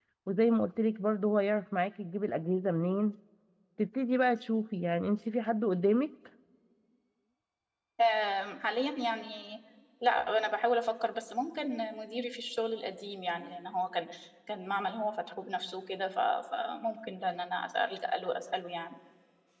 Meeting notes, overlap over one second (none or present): none